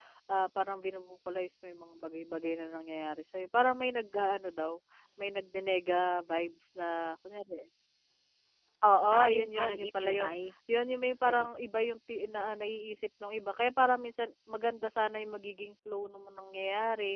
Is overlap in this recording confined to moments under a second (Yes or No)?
No